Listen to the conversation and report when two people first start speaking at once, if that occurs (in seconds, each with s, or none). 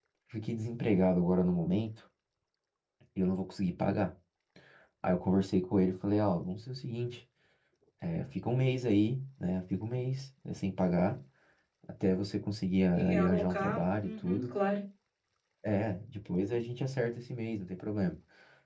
12.9 s